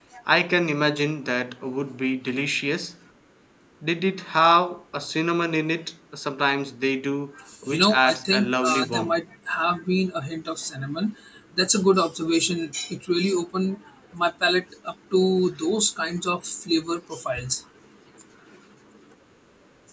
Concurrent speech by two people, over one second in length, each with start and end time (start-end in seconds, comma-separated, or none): 7.7-9.2